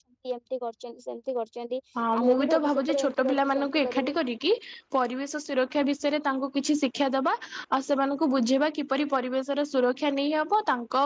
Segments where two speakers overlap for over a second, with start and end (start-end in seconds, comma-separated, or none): 2.2-4.2